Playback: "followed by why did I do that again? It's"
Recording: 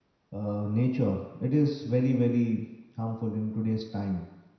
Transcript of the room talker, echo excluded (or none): uh, nature it is very very harmful in today's time